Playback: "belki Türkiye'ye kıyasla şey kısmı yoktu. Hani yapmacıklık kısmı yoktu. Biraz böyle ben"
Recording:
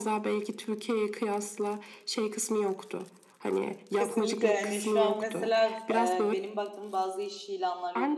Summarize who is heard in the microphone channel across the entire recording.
both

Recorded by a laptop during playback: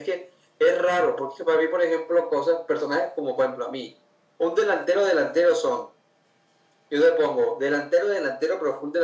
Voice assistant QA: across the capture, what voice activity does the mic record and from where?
echo only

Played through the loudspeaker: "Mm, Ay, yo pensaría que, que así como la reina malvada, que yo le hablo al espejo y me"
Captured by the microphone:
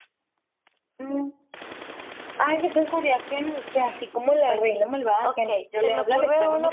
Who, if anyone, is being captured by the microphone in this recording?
both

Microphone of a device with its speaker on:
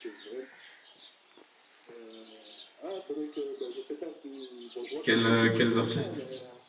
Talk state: both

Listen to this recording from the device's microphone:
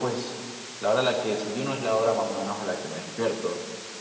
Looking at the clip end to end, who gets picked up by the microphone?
echo only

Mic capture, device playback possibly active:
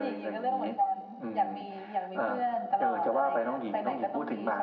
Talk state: echo only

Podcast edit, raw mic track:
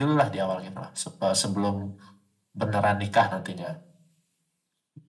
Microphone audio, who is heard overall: echo only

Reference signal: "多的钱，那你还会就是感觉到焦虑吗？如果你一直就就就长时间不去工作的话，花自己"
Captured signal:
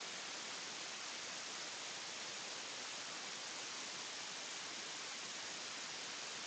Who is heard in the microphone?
neither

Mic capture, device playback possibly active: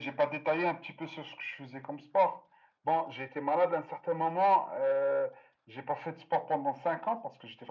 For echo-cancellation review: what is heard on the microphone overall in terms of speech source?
echo only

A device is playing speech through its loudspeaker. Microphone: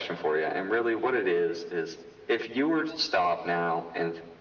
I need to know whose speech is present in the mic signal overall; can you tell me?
echo only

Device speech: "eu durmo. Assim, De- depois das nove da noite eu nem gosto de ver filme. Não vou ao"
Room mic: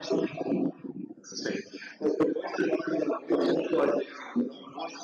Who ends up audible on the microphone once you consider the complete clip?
echo only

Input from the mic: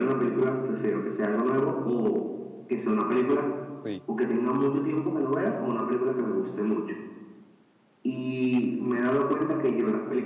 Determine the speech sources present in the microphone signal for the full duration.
both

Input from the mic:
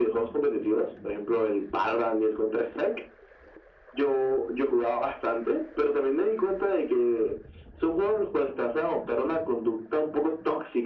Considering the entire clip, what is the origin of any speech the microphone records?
echo only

